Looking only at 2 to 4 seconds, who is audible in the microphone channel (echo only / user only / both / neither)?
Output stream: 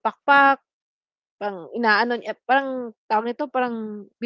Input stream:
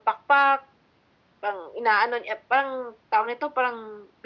echo only